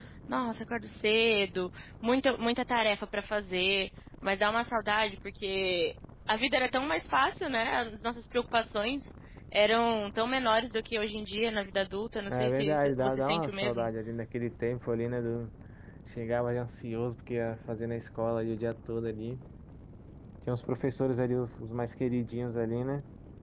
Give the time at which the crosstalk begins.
12.3 s

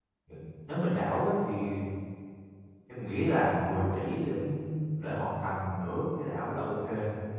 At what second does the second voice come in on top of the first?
none

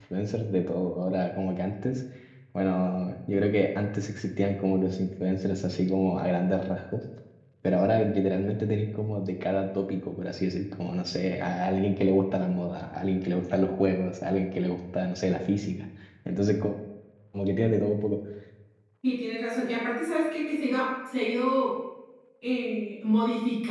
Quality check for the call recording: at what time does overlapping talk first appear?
none

